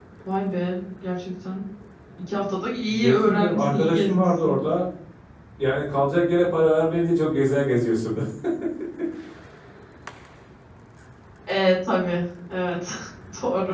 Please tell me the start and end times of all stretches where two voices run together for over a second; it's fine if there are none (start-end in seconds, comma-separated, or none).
2.9-4.6